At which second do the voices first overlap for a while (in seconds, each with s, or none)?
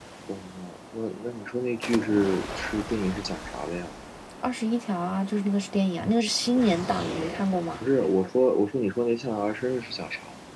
none